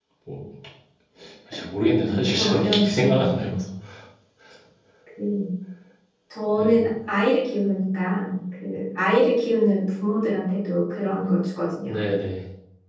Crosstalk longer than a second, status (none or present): present